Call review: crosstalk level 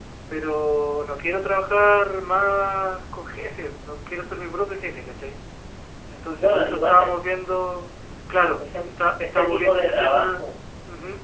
present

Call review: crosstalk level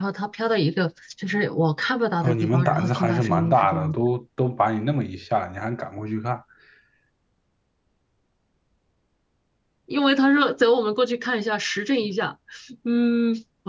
present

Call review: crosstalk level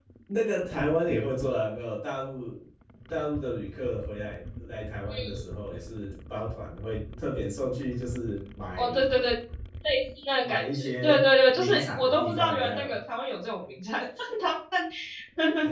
present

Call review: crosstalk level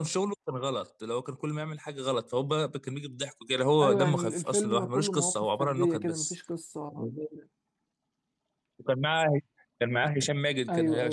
present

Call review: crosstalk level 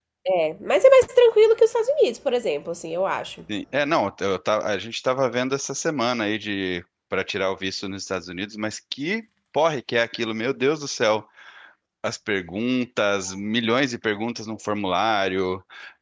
none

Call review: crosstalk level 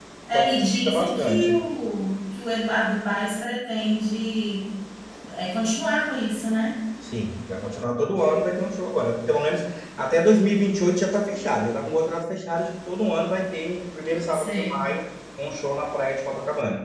present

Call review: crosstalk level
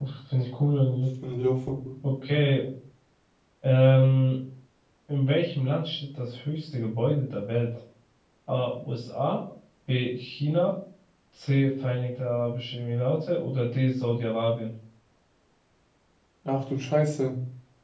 none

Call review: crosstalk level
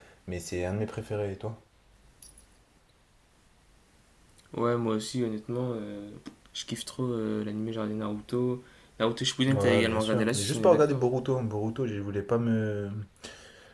present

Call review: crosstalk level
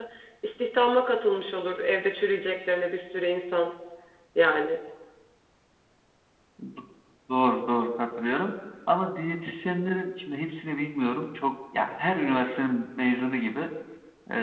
none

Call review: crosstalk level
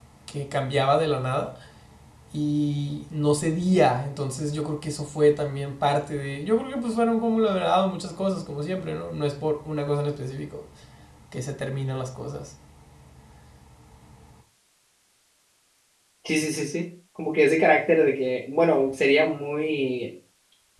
none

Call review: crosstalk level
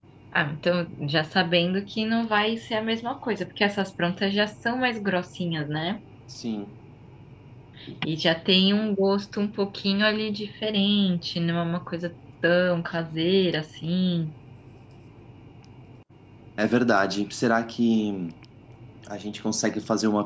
none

